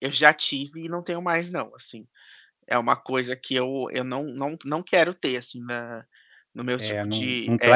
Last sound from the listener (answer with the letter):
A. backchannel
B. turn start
B